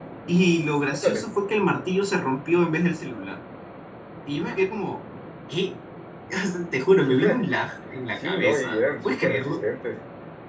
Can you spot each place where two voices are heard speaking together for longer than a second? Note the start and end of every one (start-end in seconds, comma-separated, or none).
8.2-9.6